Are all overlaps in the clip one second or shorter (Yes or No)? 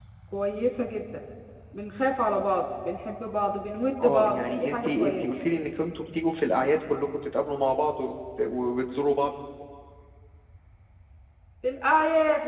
No